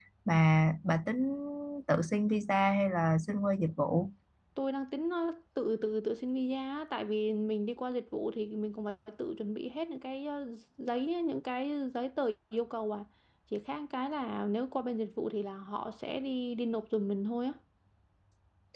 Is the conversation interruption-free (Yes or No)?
Yes